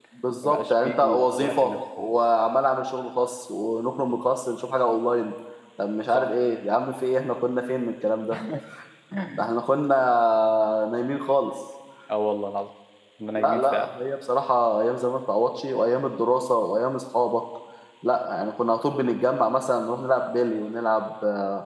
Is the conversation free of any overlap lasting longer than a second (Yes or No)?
No